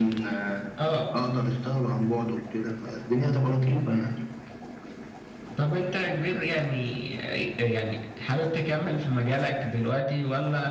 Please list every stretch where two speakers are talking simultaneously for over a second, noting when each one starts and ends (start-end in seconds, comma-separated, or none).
none